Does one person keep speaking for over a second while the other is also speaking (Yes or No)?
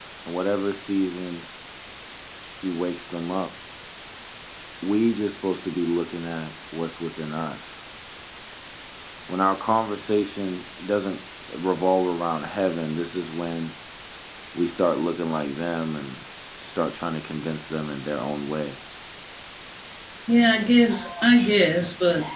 No